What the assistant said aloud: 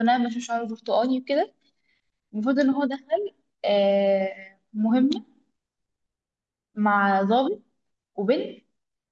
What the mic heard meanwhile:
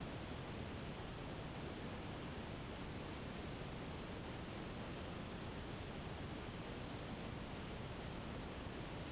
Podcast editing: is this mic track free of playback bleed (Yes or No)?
Yes